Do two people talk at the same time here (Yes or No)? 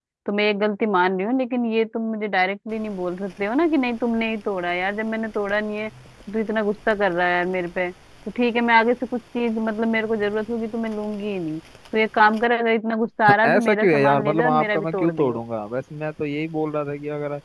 Yes